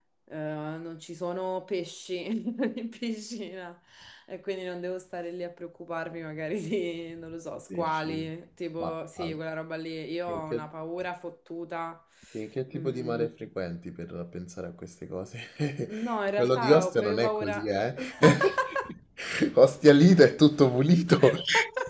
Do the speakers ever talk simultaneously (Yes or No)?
Yes